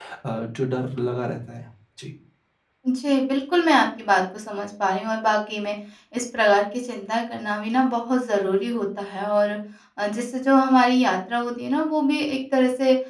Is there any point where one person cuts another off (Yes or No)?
No